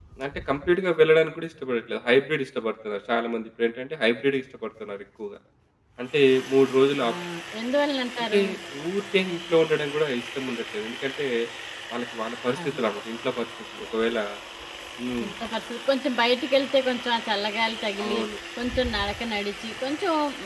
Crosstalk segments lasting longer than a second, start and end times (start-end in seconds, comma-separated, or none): none